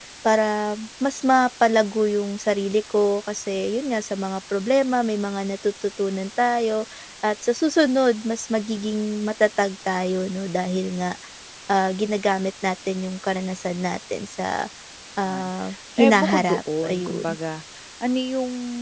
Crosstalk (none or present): present